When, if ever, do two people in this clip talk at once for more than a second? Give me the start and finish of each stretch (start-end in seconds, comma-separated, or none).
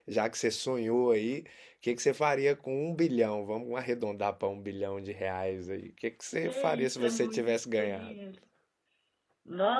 6.4-8.1